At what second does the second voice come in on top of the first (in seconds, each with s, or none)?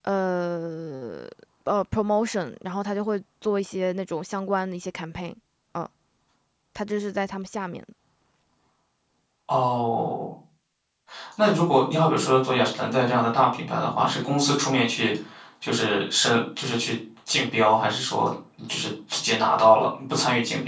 none